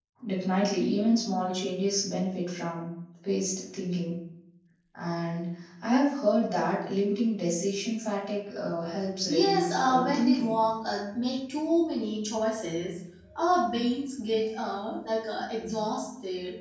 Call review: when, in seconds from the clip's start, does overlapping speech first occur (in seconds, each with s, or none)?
9.3 s